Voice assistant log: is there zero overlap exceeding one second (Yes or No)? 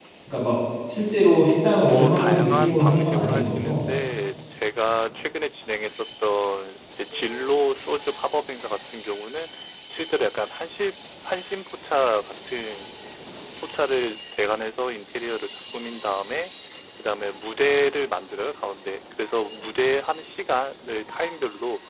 No